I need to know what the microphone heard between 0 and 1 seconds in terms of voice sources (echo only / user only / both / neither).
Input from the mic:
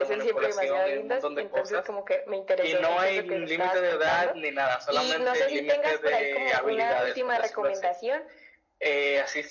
echo only